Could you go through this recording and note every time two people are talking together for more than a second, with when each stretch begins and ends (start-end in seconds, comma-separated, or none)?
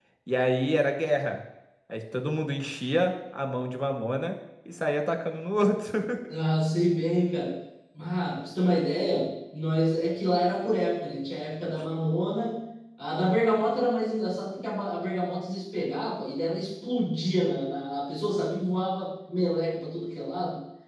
none